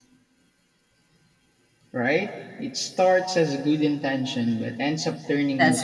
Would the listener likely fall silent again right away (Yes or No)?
No